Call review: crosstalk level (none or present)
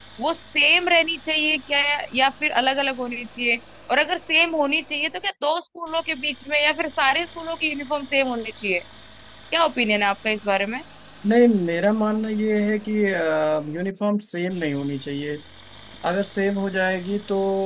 none